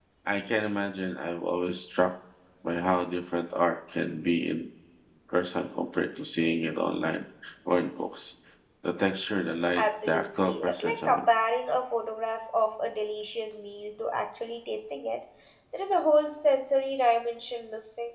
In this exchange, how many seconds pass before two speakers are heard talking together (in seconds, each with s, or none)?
9.8 s